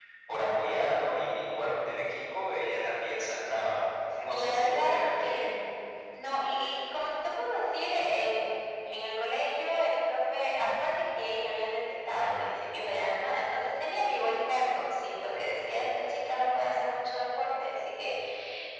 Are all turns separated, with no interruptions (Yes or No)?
No